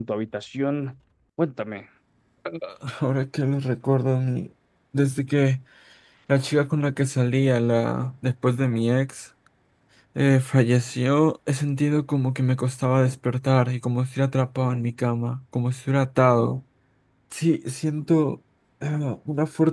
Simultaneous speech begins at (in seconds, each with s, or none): none